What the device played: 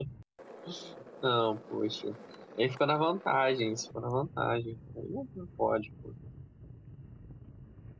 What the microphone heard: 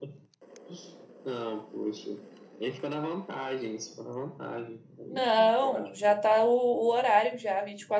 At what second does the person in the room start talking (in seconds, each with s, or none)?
5.1 s